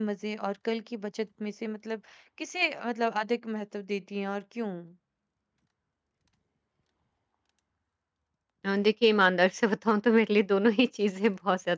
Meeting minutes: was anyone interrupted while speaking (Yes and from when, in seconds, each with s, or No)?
No